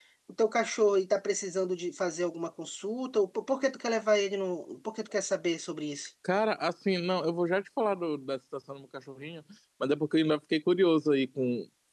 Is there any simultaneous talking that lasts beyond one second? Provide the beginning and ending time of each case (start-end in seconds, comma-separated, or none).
none